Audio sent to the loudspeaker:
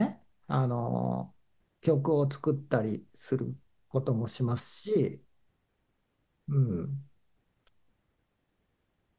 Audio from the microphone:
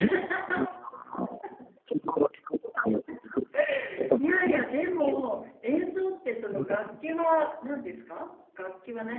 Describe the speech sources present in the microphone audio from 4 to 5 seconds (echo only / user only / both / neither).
both